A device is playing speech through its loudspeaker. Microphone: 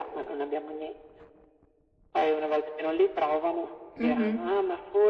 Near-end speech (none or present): present